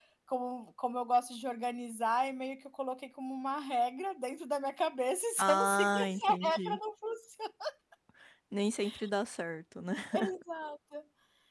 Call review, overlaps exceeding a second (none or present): present